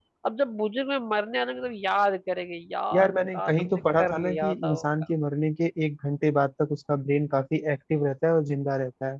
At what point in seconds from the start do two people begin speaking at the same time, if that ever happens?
2.9 s

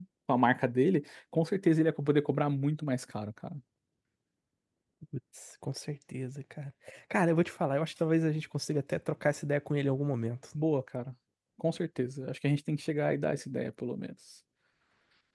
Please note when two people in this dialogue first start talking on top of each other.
none

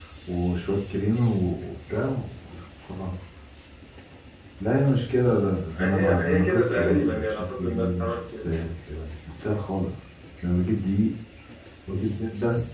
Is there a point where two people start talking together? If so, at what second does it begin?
5.7 s

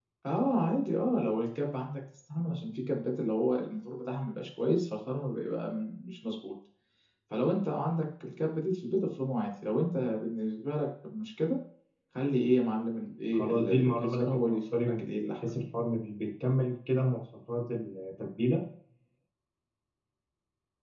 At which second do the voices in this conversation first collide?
13.3 s

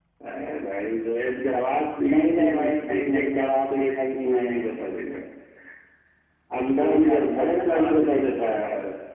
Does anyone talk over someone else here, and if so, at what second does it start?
2.0 s

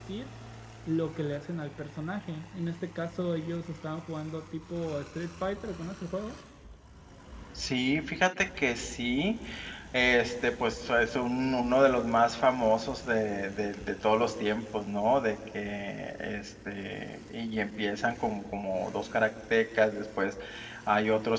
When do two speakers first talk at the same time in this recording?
none

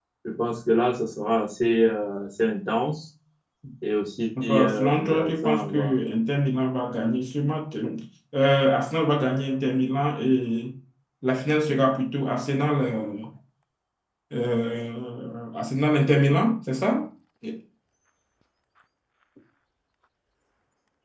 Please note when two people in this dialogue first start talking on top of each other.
4.4 s

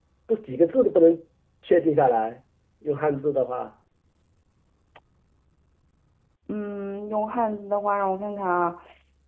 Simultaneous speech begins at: none

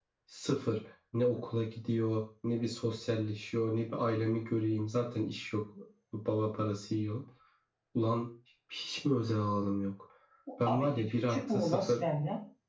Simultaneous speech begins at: 10.6 s

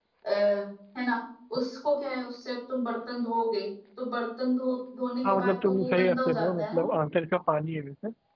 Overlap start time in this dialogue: 5.2 s

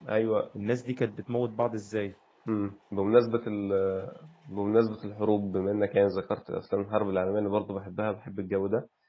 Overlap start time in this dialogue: none

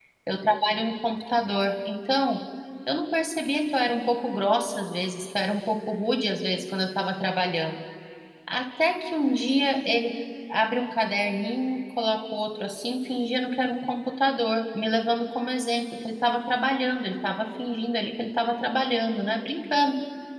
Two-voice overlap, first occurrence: none

